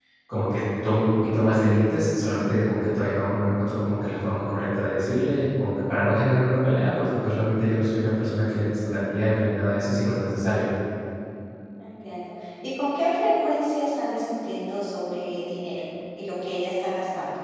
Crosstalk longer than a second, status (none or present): none